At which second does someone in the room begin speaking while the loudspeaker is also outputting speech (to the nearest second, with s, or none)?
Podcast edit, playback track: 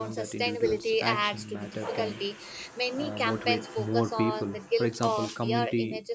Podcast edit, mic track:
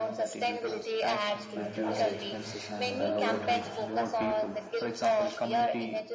2 s